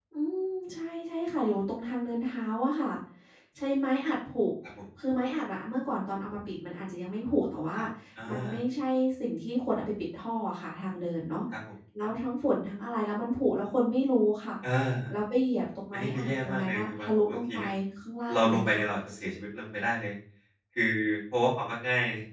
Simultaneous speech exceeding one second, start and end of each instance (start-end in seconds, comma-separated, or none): 15.9-17.6